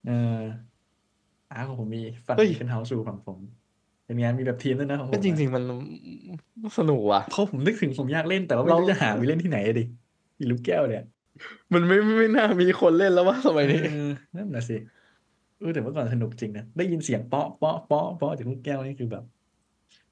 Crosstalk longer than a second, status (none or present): none